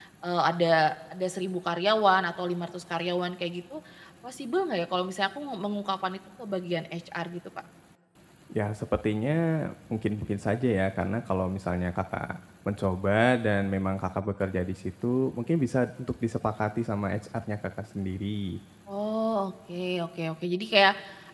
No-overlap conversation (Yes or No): Yes